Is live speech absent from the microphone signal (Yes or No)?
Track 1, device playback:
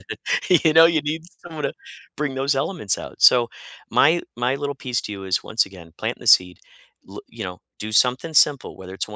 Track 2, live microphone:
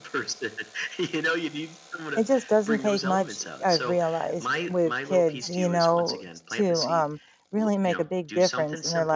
No